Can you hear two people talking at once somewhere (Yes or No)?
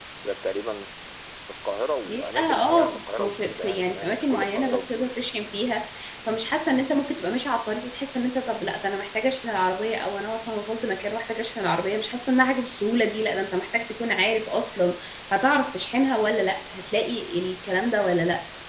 Yes